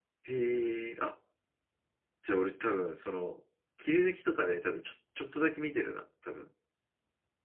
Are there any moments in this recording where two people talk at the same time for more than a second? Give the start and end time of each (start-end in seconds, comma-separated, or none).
none